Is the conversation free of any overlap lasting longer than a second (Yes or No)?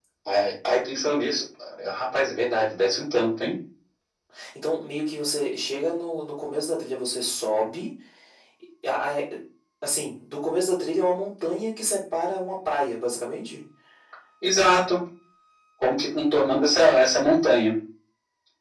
Yes